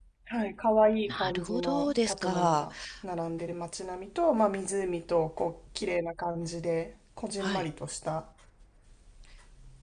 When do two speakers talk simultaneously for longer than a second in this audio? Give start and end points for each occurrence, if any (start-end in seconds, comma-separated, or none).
1.1-2.6